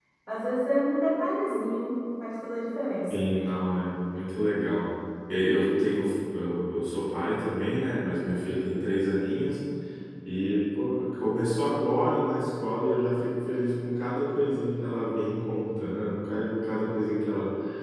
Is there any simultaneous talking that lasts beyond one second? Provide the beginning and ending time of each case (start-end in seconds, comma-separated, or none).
none